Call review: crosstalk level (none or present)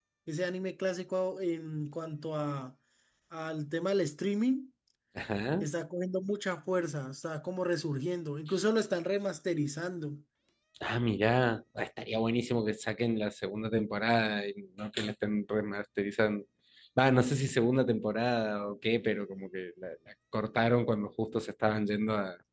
none